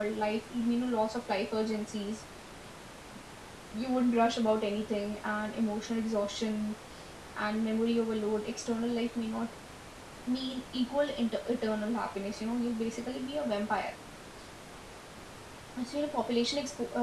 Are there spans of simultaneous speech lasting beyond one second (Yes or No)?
No